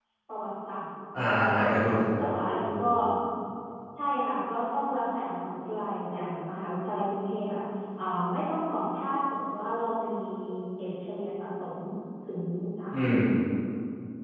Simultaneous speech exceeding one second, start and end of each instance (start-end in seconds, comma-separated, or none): 1.3-2.8